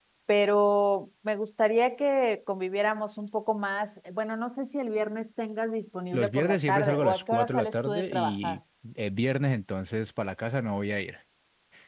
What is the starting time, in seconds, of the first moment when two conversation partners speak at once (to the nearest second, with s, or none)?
6 s